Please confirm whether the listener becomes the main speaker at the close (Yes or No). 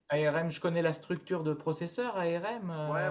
Yes